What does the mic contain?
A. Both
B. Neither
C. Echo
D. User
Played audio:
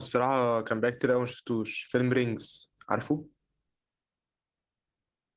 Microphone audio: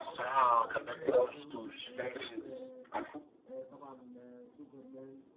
A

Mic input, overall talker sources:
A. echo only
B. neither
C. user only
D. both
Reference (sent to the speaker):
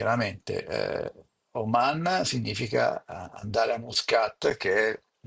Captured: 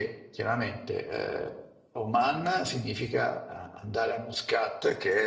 A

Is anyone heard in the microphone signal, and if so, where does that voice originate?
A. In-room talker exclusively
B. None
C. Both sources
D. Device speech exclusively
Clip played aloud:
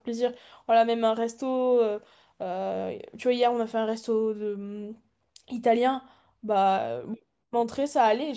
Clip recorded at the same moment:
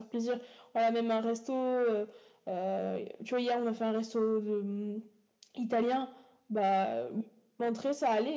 D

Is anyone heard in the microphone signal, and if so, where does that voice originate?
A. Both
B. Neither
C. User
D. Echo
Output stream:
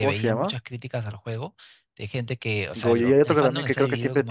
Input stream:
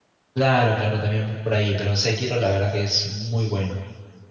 C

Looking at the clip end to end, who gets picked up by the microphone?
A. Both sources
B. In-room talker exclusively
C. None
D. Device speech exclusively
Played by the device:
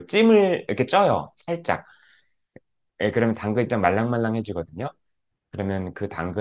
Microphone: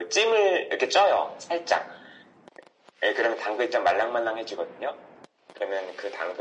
D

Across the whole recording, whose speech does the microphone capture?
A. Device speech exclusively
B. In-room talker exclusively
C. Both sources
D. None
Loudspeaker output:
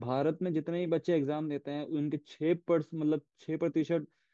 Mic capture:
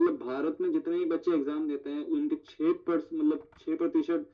A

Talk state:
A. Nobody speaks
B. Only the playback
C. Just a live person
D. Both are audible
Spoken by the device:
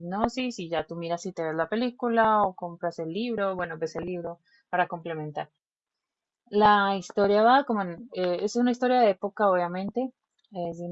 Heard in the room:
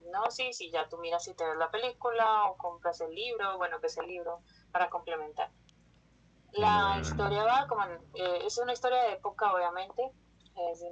D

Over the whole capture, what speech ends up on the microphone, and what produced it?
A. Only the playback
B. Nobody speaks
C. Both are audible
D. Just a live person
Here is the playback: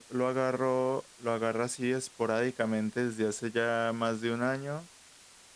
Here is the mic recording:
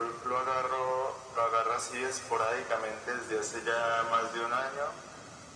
A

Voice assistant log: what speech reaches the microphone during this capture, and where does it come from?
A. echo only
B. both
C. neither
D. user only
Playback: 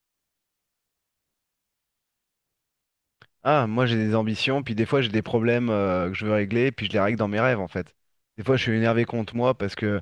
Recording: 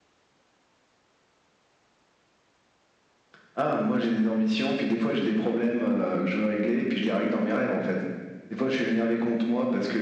A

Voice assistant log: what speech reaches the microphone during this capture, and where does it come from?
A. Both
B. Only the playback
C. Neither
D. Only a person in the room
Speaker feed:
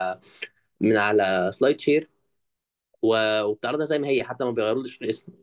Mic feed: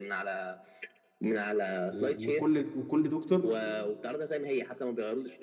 A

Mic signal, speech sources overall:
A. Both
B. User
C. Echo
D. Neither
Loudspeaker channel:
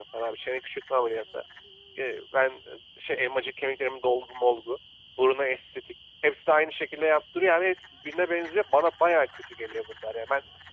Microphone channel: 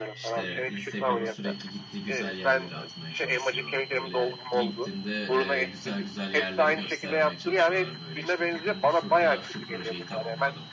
A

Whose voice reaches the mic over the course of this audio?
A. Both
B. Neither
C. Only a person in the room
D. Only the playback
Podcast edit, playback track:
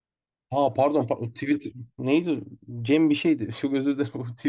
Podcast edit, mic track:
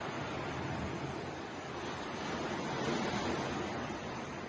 B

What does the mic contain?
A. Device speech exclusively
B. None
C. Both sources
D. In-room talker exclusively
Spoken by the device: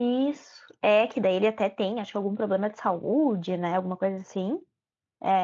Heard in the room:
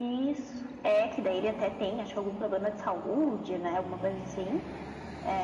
A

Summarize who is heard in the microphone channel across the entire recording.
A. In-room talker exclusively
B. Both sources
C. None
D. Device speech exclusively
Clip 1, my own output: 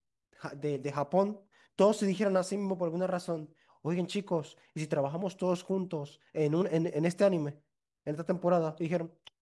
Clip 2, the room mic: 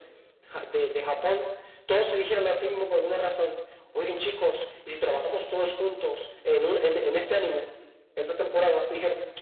D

